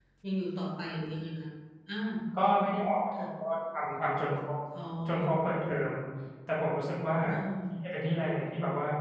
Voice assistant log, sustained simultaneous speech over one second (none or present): none